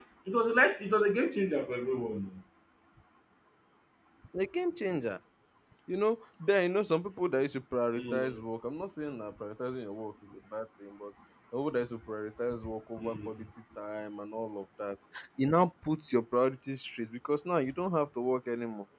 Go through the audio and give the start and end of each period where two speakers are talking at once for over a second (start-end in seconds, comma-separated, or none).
none